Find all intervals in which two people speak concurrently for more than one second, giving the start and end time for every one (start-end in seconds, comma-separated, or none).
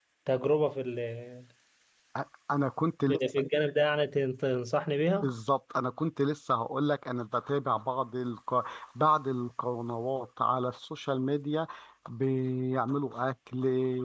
none